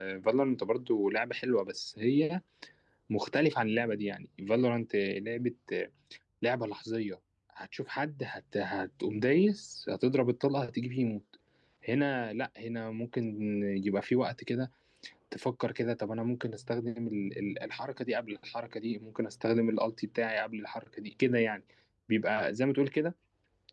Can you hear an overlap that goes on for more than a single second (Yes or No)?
No